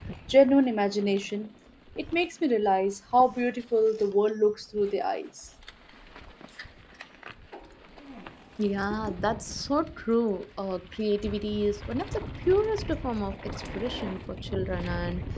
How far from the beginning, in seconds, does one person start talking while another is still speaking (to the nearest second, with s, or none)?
none